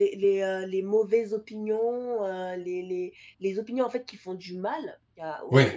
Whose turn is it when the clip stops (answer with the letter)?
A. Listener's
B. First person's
B